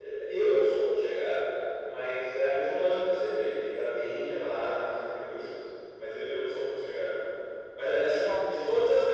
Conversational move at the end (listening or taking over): listening